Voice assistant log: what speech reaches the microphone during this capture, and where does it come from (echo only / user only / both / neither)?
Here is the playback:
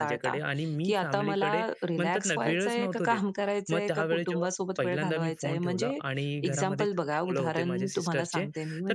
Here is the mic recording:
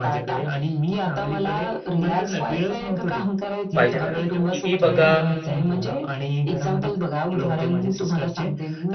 both